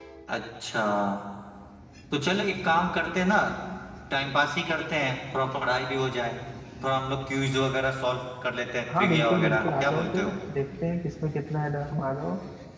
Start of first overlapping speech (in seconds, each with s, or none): 8.9 s